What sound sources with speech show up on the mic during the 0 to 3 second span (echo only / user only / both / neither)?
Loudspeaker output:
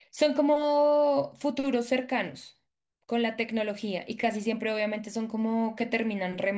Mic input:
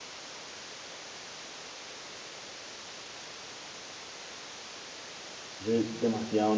neither